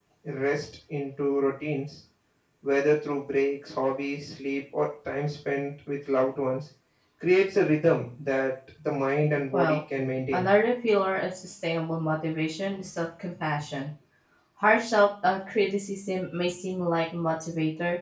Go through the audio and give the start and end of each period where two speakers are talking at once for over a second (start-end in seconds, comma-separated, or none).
none